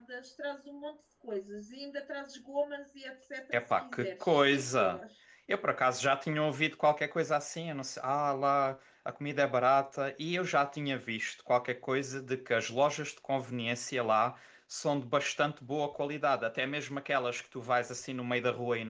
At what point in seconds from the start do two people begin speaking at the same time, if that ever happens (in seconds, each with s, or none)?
3.5 s